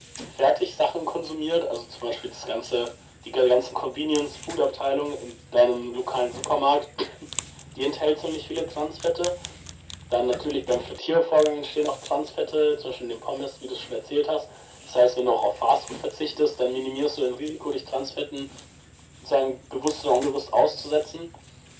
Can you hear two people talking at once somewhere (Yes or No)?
No